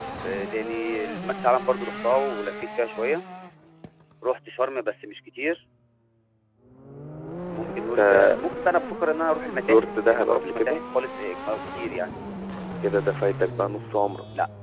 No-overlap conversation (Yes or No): No